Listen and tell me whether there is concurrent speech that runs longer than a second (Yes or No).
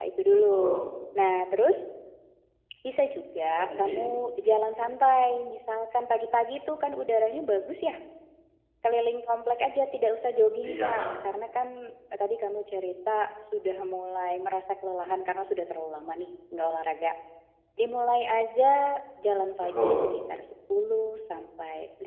No